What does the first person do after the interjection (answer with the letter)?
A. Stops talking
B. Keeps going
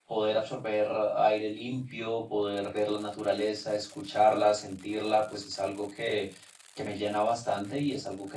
B